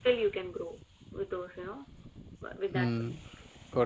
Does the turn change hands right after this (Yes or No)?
Yes